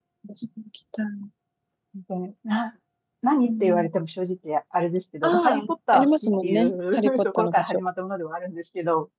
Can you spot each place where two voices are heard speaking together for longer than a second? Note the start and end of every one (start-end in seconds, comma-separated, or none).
5.2-7.9